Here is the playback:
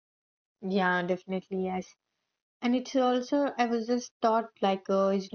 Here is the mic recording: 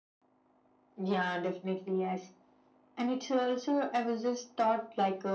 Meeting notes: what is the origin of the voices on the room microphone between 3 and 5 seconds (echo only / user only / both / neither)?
echo only